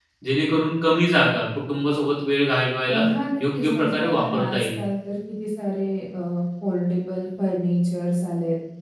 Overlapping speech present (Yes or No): Yes